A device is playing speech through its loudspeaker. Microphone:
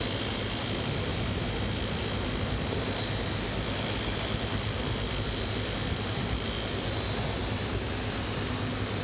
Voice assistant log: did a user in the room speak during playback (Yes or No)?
No